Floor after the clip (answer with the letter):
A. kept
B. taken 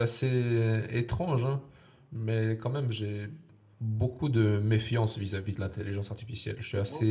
A